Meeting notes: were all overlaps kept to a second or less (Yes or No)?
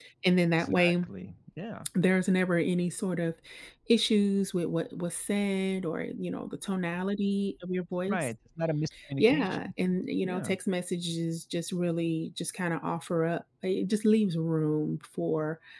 Yes